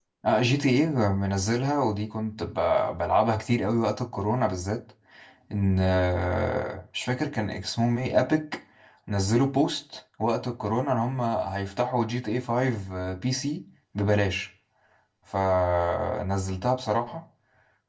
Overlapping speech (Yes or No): No